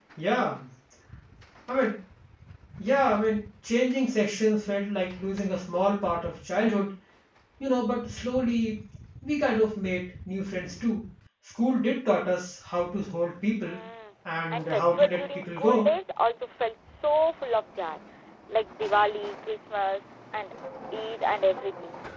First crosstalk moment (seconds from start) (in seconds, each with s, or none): 14.5 s